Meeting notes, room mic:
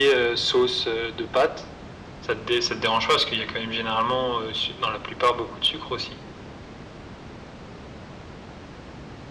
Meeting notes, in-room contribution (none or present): none